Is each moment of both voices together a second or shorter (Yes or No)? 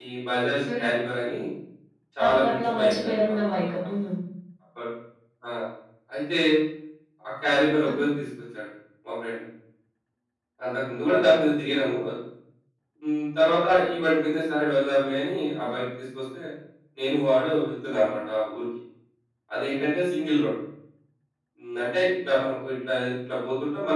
No